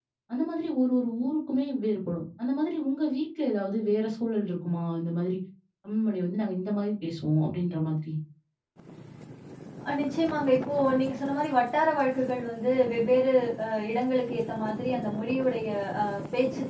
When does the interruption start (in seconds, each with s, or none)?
none